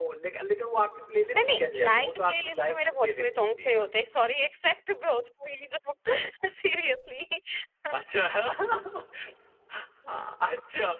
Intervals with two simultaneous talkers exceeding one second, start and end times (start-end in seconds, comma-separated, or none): 1.4-3.9